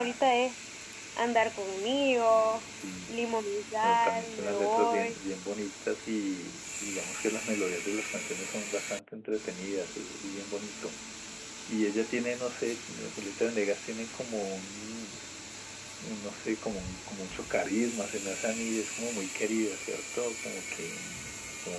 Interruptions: present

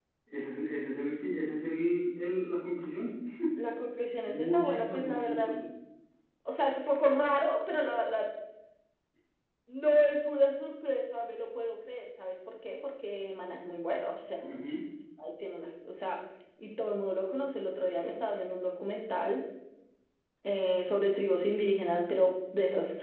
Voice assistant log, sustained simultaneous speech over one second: present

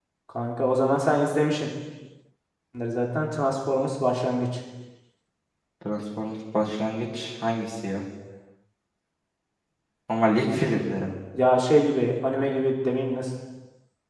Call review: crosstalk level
none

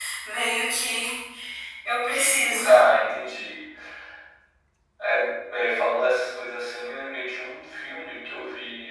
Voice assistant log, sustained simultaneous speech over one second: none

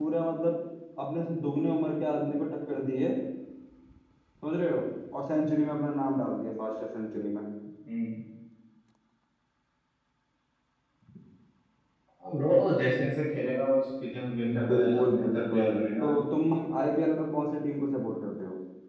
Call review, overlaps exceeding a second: present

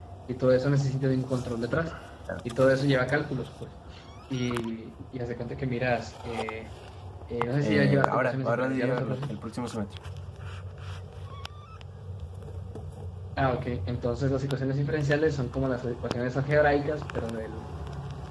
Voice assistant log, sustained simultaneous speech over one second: present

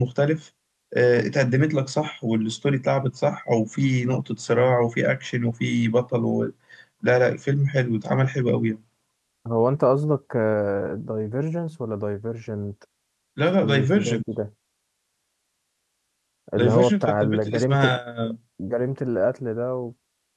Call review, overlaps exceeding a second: present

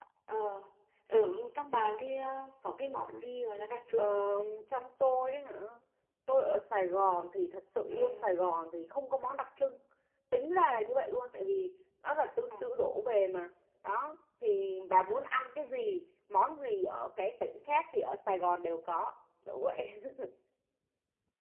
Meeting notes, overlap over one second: none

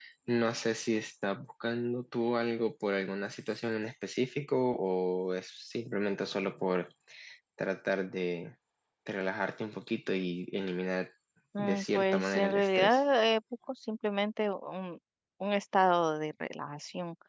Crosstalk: present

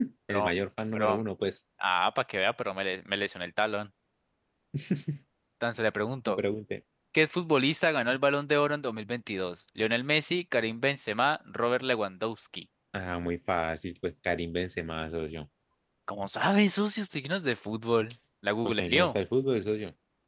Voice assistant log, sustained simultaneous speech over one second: none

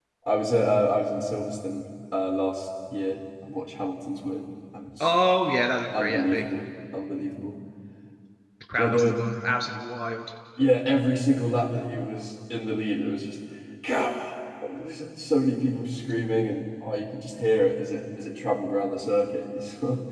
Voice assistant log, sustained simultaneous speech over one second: none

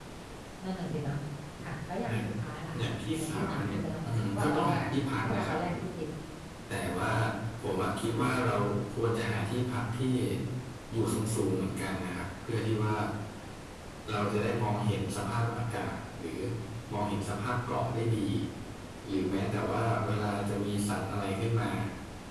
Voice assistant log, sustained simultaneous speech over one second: present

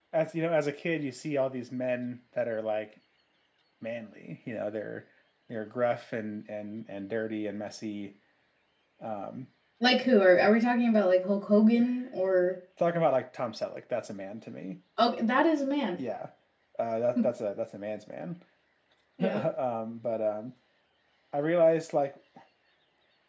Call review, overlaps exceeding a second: none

